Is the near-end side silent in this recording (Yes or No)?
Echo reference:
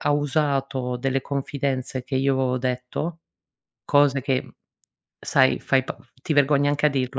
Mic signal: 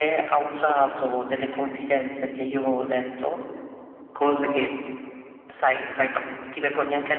Yes